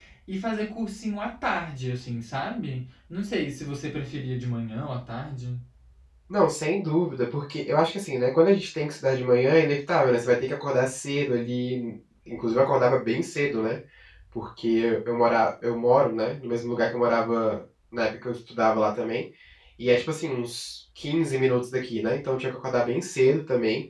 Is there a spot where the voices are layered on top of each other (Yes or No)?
No